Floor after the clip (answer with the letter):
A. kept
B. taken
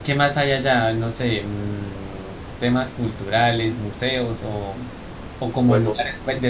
A